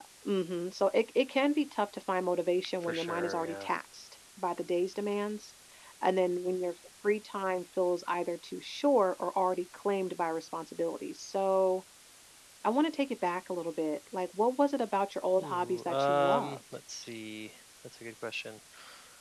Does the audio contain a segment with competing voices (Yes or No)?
Yes